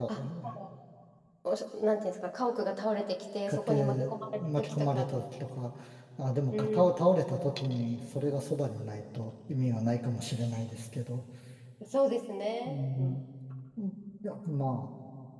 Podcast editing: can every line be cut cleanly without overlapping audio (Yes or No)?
No